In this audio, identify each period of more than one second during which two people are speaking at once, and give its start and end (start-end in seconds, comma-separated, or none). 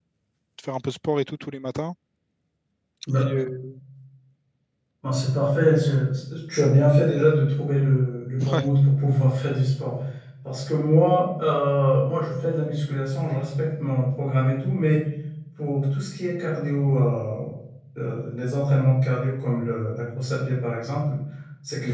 none